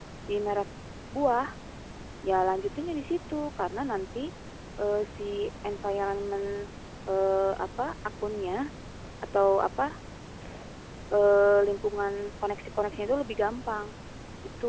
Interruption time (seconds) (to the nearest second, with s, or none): none